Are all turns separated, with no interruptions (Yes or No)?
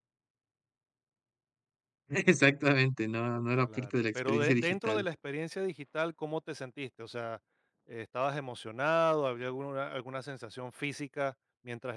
No